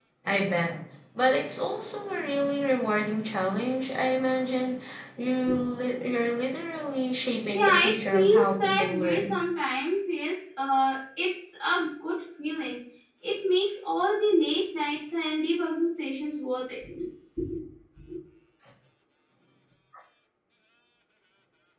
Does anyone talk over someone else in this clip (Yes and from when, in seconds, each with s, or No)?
Yes, from 7.5 s